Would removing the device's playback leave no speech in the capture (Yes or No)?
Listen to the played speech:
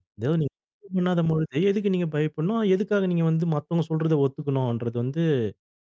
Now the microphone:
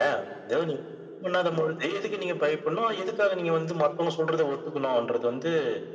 Yes